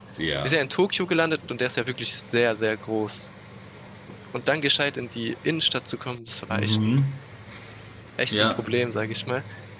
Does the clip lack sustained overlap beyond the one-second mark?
Yes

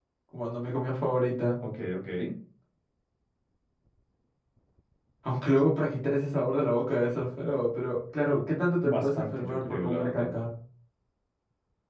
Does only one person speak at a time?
No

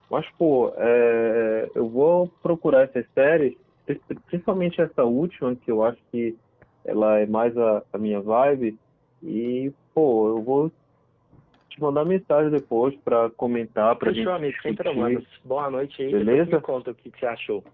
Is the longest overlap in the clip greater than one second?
Yes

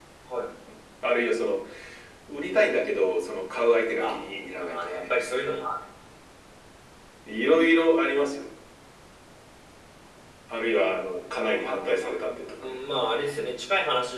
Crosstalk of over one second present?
Yes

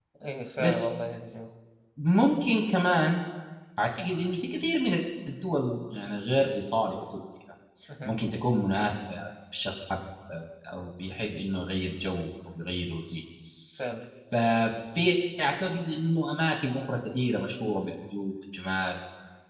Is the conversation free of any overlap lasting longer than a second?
Yes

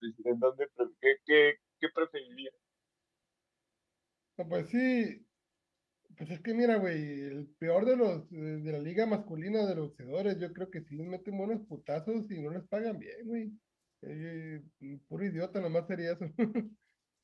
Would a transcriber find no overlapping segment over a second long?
Yes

